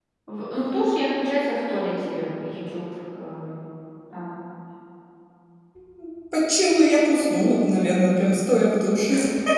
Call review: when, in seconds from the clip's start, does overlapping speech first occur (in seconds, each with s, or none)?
none